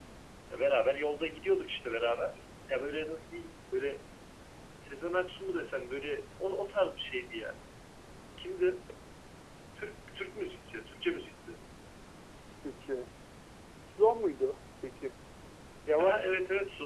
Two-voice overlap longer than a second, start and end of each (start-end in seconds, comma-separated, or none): none